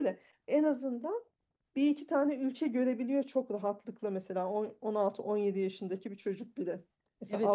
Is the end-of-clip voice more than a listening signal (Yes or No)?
Yes